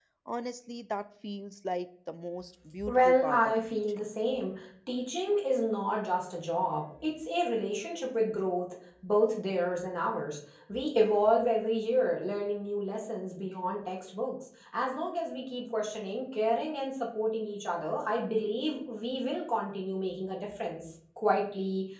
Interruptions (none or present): present